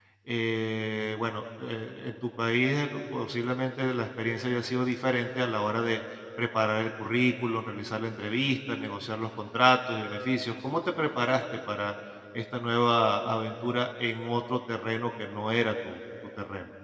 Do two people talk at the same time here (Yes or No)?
No